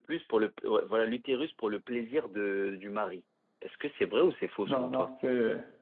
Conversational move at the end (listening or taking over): taking over